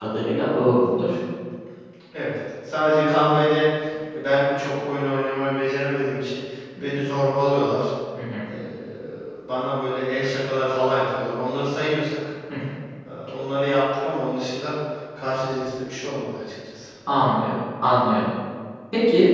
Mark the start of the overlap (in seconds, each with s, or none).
none